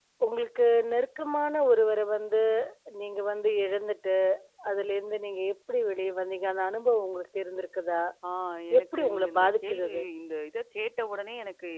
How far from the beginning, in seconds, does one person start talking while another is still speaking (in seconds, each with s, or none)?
8.8 s